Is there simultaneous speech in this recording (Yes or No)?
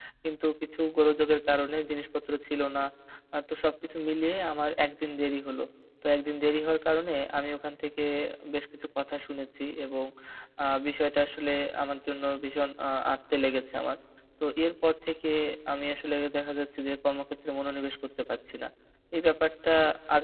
No